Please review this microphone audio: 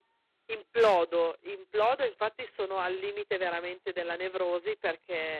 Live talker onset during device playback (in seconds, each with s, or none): 0.5 s